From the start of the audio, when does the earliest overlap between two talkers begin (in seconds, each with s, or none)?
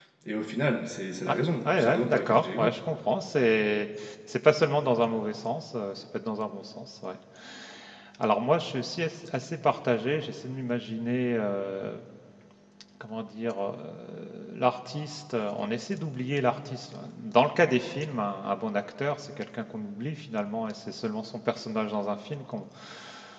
1.3 s